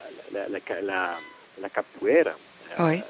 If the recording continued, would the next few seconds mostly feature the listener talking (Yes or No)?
No